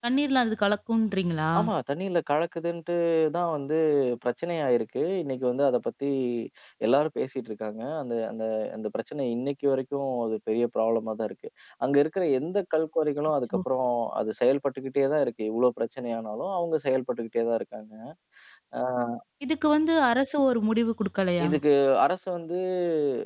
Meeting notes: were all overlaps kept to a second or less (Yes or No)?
Yes